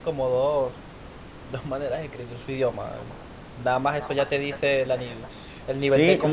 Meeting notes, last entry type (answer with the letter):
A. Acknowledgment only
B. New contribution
B